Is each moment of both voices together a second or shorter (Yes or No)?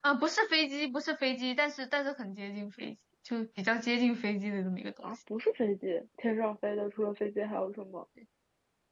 Yes